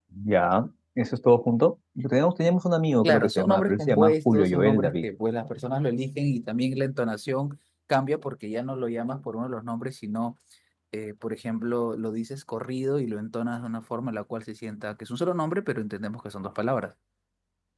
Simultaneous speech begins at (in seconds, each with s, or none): 3.0 s